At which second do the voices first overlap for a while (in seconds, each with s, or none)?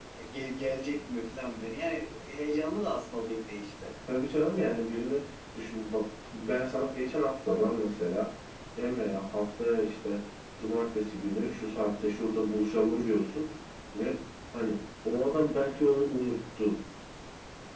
none